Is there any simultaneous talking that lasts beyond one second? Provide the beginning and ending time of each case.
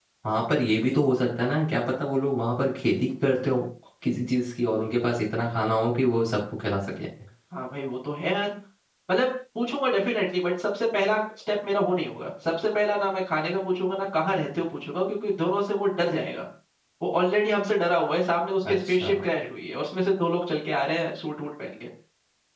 none

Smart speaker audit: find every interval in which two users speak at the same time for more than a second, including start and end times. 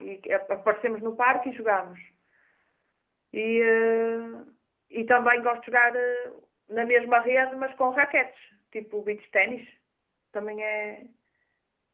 none

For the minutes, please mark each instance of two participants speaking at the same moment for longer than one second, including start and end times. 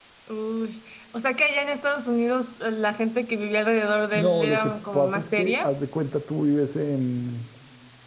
4.2-5.7

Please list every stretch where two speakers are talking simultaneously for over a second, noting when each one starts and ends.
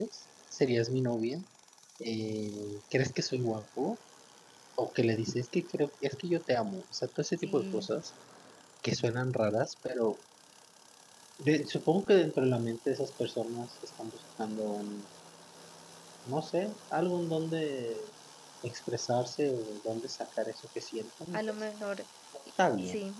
none

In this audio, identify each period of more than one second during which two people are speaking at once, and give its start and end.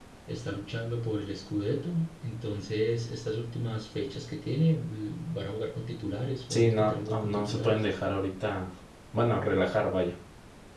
6.5-7.8

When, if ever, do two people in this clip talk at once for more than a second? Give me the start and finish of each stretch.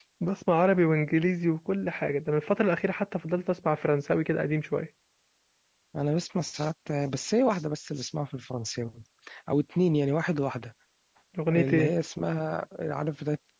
none

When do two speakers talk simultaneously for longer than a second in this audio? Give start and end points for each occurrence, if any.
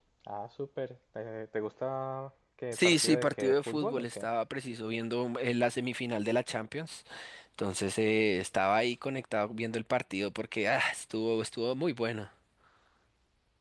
2.7-4.3

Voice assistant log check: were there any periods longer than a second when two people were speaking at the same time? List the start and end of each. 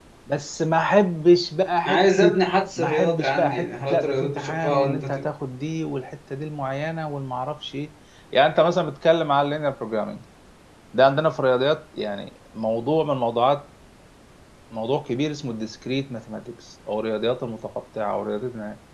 2.8-5.2

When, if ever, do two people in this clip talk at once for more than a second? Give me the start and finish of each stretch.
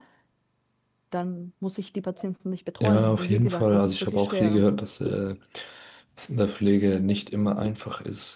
2.8-4.6

